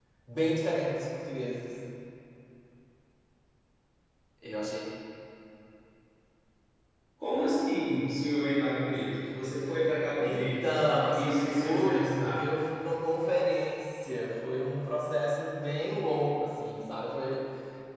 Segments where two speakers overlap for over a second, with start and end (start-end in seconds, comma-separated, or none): 10.2-12.5